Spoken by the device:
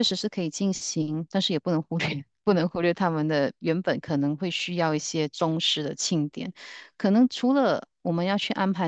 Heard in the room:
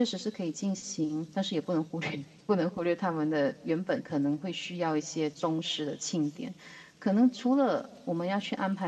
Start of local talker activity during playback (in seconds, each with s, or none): none